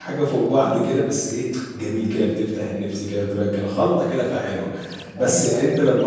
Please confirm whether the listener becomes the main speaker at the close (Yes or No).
No